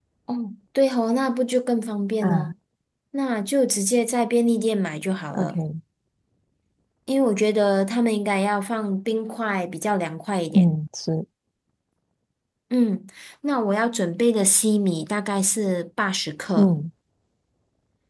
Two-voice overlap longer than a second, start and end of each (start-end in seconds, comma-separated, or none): none